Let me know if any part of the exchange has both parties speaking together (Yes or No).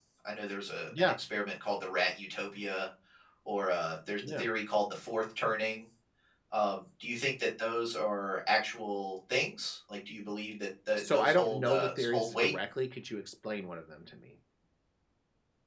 Yes